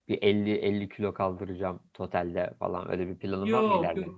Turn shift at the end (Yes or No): Yes